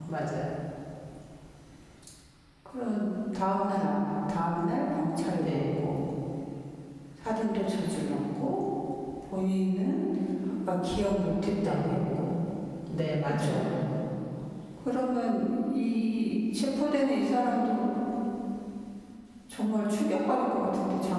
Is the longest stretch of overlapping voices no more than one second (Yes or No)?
Yes